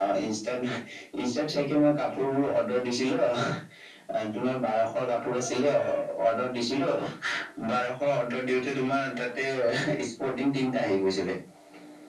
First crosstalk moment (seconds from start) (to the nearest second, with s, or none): none